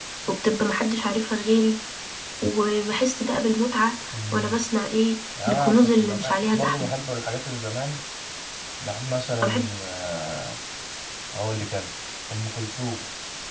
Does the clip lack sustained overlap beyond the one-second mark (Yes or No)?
No